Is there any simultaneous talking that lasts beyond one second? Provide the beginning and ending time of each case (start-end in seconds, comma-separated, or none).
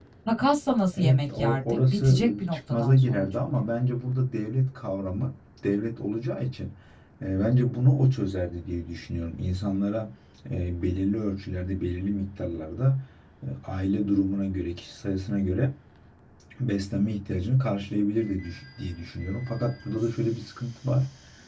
0.9-3.7